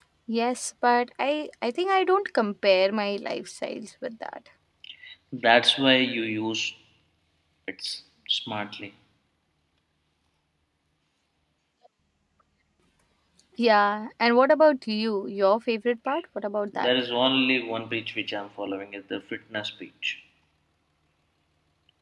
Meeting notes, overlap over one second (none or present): none